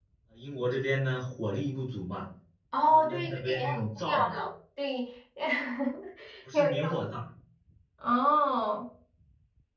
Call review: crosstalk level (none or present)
present